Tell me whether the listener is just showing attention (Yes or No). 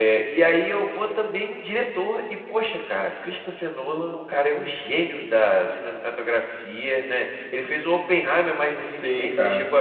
No